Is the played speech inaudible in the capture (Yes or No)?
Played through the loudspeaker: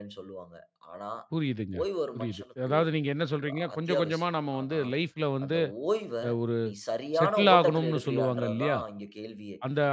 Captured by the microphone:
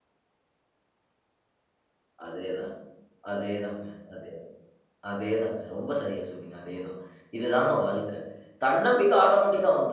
Yes